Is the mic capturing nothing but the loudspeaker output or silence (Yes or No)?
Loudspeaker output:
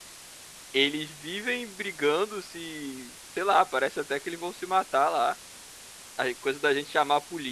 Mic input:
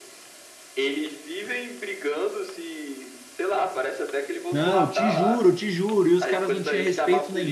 No